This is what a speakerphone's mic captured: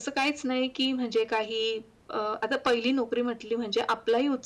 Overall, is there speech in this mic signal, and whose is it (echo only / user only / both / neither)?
echo only